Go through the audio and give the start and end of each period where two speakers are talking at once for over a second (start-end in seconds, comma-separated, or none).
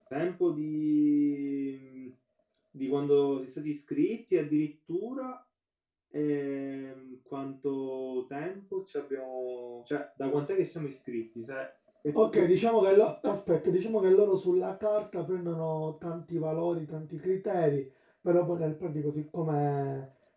none